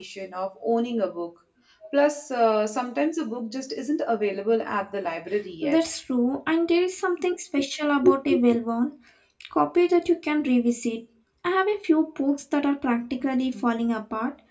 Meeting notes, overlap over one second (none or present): none